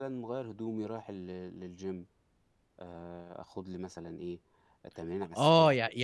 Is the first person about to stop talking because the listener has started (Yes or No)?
Yes